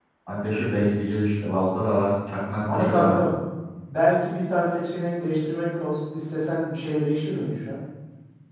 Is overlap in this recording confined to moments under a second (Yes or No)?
Yes